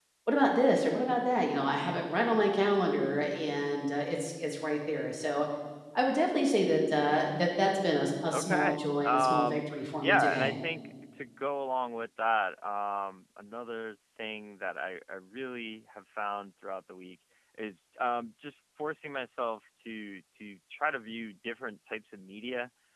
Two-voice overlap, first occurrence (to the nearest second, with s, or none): 8 s